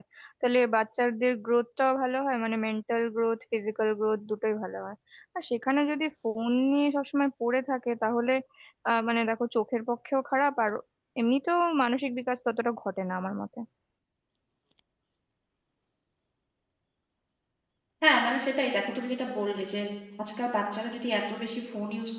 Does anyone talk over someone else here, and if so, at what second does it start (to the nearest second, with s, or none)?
none